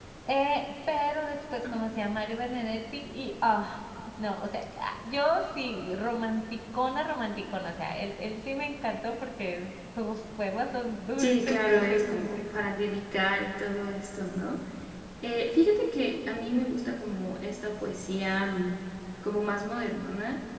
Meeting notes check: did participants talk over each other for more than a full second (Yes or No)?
Yes